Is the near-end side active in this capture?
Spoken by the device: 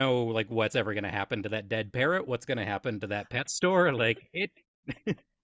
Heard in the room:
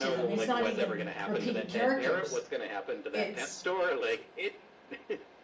Yes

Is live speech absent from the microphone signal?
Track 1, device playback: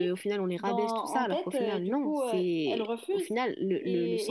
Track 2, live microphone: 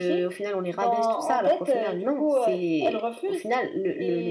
Yes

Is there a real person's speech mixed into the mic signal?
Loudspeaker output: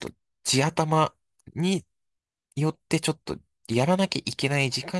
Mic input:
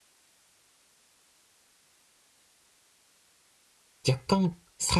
Yes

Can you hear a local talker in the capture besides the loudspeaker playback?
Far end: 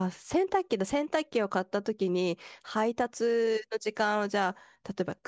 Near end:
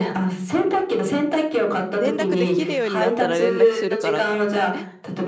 Yes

